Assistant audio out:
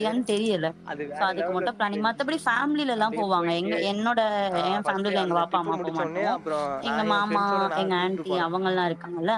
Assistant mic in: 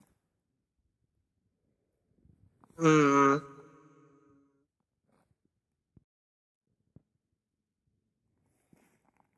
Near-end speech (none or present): present